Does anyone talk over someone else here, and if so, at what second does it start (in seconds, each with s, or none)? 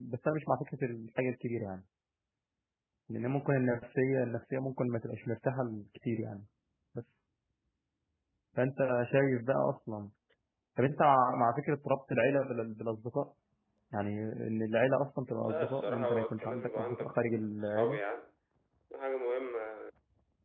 15.4 s